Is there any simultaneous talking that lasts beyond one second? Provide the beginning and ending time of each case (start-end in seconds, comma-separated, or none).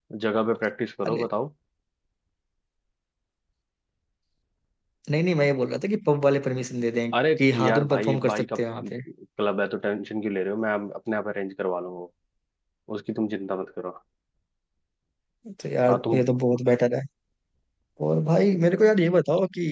7.1-8.9